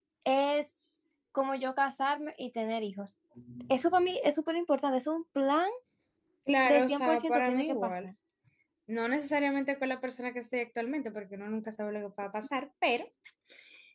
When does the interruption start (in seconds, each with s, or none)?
6.6 s